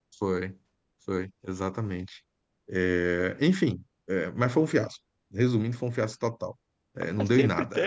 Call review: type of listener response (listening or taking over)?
taking over